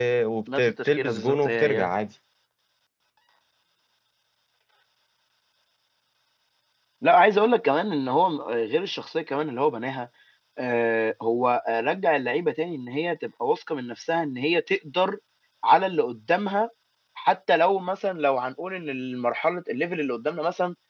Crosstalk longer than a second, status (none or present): present